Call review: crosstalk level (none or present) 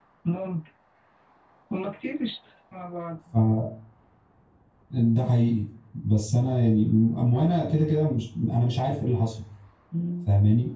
none